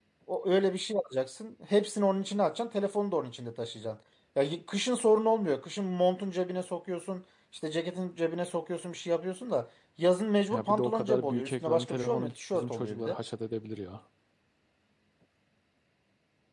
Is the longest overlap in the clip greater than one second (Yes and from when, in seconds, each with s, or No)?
Yes, from 10.5 s